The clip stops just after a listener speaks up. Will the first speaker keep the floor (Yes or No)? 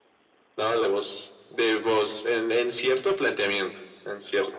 No